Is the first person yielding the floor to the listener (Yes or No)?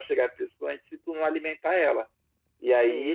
No